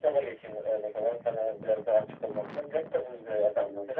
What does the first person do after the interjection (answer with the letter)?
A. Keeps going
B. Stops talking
A